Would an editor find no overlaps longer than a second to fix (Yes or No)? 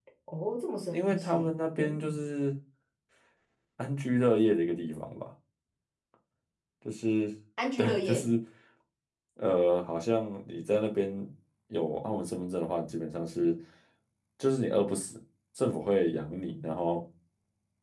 No